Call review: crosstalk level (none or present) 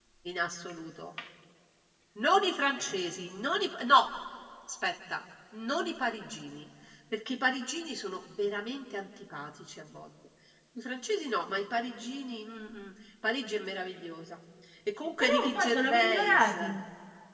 present